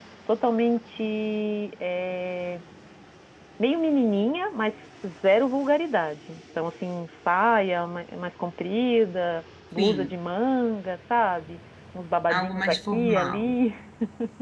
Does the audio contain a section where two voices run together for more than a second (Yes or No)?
Yes